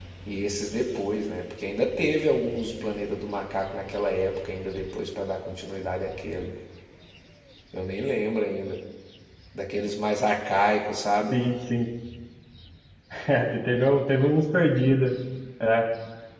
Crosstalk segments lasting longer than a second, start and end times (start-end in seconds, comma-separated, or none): none